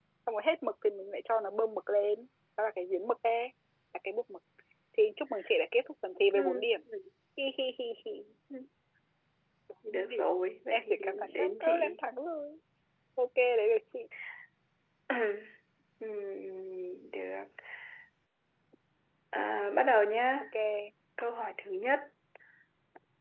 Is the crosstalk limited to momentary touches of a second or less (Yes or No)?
No